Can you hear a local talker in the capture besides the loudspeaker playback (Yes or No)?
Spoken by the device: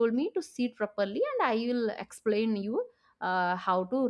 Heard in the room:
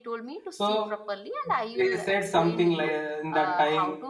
Yes